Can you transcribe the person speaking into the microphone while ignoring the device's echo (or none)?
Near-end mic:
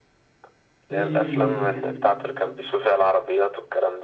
في